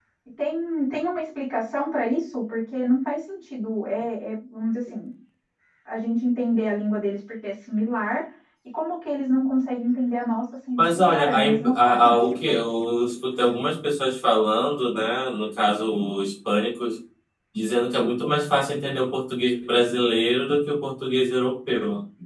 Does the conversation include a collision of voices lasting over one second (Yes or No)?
Yes